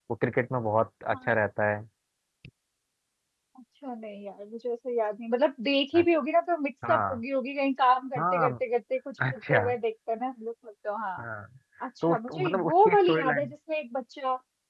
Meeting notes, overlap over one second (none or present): present